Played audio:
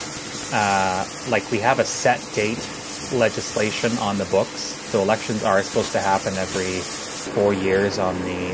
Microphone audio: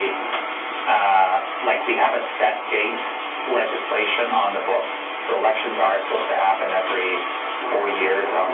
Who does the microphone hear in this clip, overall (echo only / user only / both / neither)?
echo only